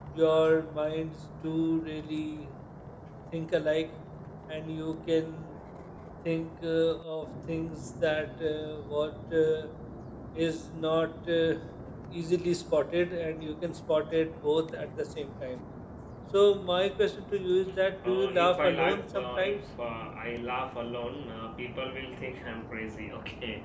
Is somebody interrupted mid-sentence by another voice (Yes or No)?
Yes